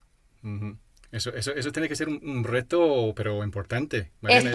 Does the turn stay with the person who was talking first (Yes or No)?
No